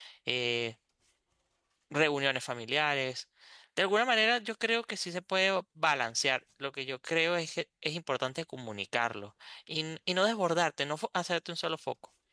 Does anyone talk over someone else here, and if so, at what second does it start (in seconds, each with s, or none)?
none